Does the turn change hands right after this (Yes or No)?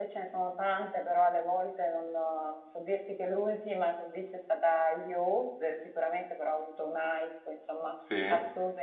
No